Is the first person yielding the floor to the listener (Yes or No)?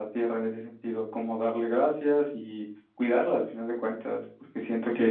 Yes